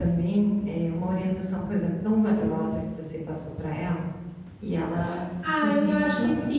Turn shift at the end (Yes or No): Yes